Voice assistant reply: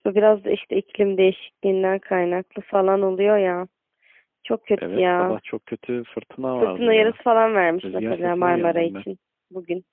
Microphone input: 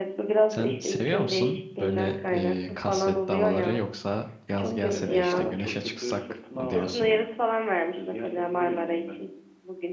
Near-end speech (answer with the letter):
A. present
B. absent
A